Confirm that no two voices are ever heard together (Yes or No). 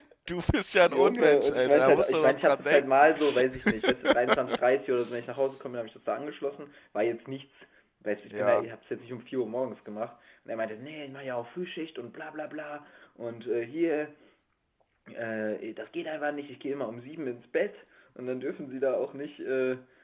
No